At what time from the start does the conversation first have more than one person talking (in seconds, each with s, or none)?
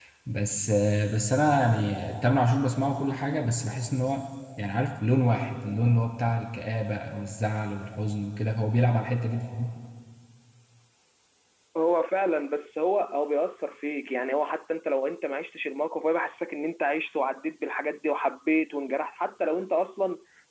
none